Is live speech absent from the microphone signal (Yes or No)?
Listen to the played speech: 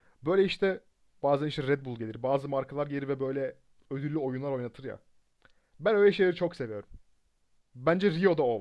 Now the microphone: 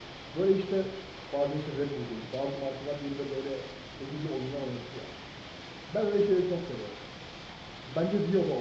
Yes